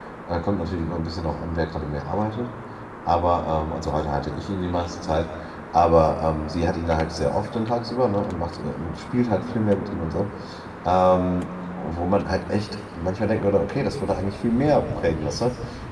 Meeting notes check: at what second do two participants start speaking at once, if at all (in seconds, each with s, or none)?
none